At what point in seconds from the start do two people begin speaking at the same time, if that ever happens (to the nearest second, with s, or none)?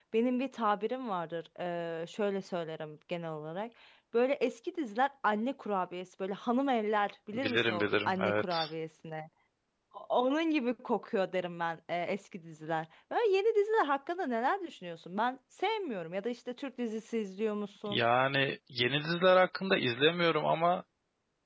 7 s